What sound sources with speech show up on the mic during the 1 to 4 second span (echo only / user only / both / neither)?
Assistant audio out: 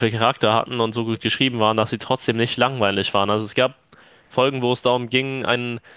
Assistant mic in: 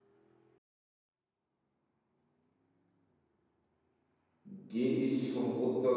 neither